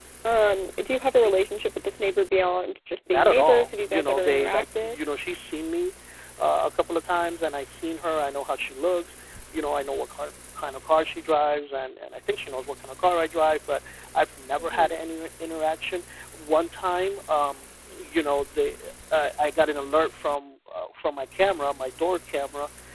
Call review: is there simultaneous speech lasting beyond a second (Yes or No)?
Yes